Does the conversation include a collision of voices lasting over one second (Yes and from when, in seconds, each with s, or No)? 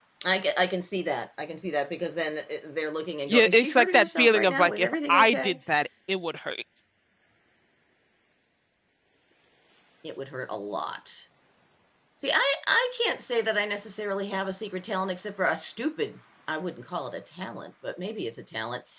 Yes, from 3.3 s